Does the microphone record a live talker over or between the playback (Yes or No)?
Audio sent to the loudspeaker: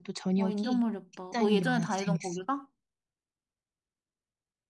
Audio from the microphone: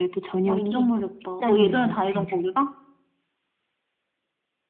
No